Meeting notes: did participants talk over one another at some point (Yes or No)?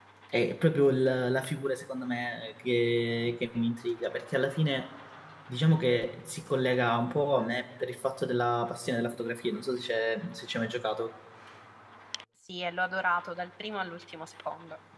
No